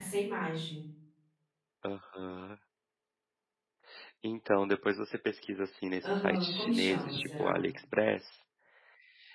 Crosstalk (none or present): present